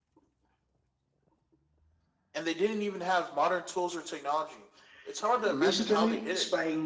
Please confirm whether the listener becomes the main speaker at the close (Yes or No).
Yes